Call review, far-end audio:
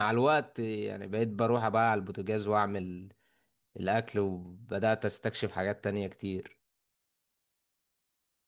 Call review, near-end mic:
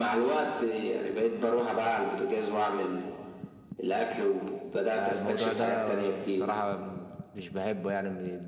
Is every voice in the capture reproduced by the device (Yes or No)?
No